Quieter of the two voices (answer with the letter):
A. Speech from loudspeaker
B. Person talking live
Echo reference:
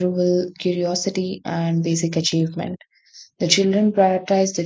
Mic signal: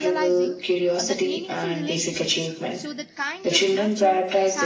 B